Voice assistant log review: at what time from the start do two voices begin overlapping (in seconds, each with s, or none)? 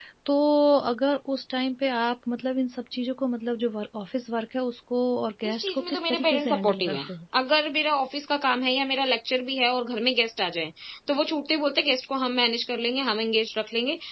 5.4 s